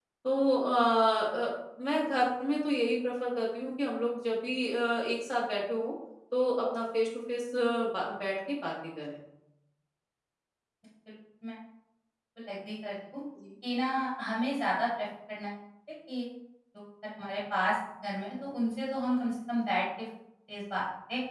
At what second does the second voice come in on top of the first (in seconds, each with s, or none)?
none